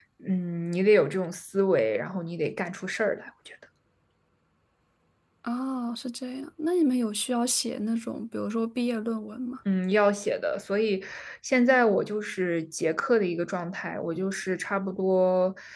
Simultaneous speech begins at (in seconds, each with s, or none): none